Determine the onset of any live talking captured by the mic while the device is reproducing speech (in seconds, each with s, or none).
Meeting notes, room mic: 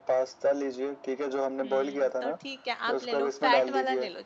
1.4 s